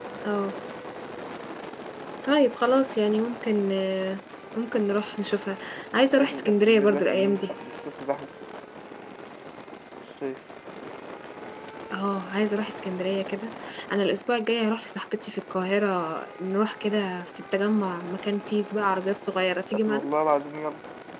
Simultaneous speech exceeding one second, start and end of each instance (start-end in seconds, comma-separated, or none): 6.2-7.5